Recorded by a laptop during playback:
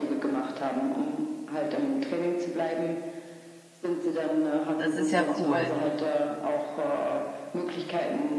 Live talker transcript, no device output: Das ist ja cool.

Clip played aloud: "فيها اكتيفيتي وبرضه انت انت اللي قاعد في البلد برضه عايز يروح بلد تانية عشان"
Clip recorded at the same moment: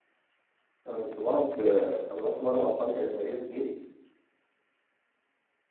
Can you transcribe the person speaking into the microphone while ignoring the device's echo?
انا كنت بقعد آه، انا رحت مره مع اصحابي كانت مارينا اتنين

